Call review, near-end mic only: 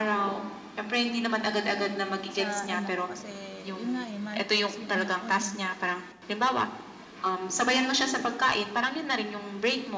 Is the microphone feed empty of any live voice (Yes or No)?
No